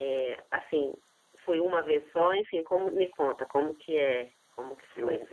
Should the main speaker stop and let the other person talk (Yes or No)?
Yes